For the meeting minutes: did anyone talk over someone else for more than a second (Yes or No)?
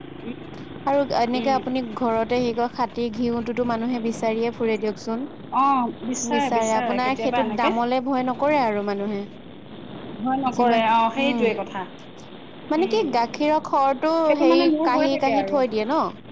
Yes